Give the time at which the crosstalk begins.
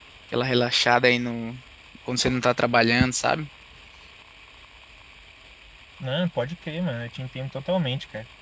none

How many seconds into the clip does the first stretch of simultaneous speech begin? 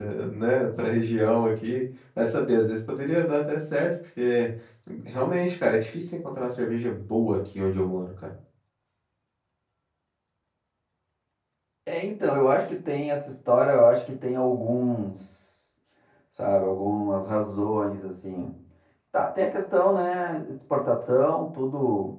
none

